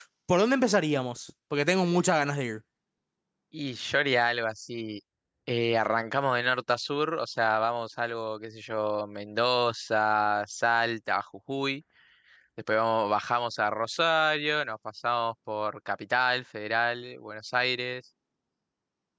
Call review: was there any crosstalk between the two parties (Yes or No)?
No